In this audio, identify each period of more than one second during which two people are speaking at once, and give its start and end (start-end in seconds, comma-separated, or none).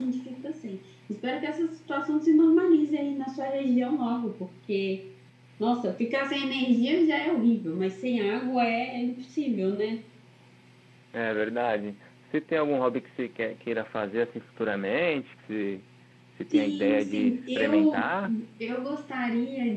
16.5-18.1